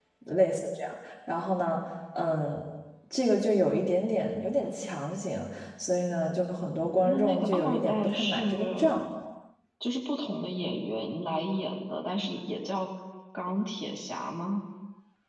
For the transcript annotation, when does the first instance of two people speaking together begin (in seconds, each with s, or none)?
7.0 s